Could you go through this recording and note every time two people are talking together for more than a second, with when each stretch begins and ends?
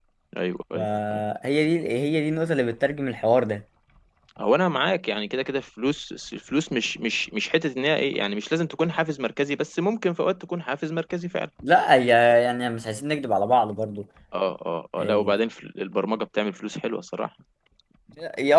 none

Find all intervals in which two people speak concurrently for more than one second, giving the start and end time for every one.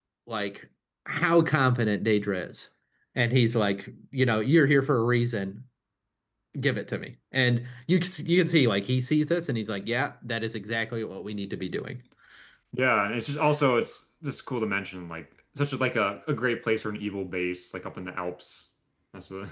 none

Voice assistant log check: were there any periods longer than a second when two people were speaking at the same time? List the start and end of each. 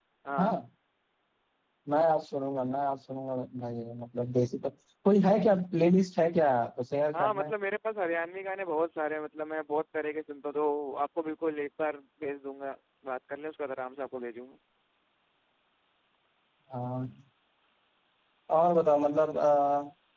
none

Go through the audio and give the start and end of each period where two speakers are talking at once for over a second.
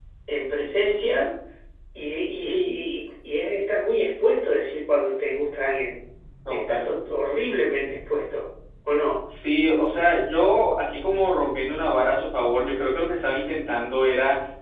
none

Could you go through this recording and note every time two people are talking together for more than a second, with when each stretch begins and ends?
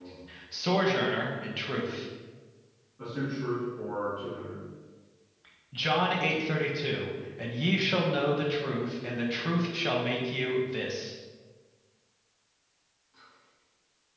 none

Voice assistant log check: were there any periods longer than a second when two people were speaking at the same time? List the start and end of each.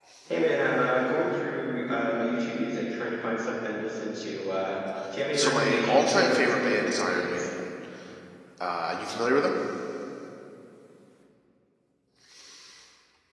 5.4-7.5

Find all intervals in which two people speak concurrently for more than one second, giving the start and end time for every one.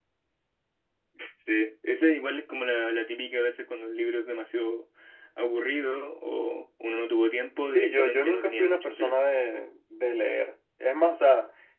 7.7-9.2

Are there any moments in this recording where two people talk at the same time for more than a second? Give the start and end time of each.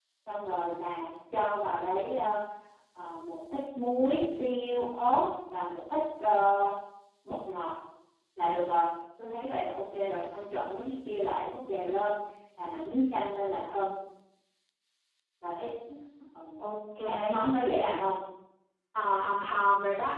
none

